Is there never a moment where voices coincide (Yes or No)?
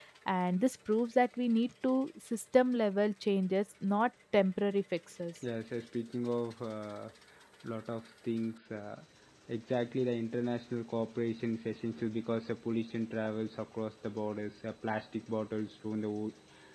Yes